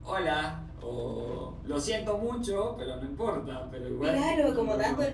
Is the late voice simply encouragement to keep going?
No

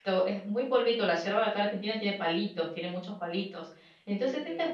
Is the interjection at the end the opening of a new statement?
No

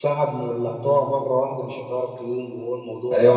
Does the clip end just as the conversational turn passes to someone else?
Yes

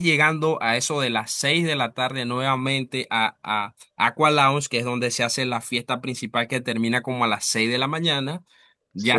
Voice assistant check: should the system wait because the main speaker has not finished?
Yes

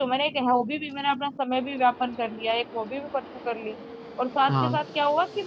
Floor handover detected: No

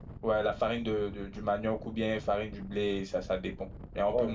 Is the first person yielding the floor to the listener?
Yes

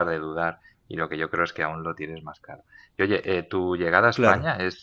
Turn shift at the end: No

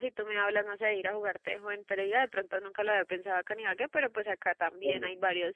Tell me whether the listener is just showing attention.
Yes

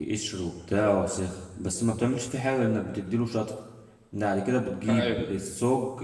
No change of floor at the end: Yes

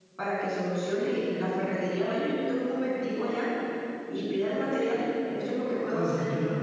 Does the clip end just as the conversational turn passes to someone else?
Yes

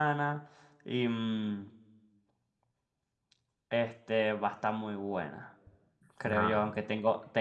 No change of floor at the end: Yes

